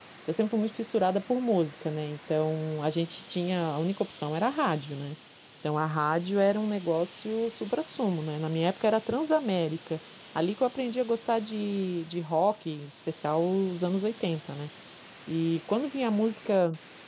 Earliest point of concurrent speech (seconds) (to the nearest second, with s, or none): none